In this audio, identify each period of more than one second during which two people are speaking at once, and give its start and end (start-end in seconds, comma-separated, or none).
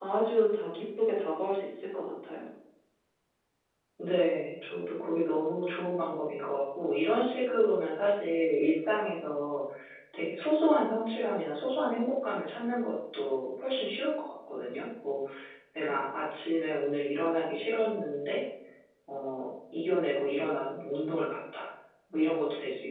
none